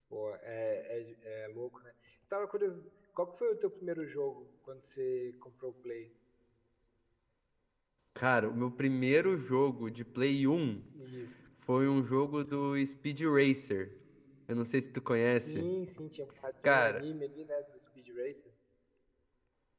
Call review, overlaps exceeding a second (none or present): none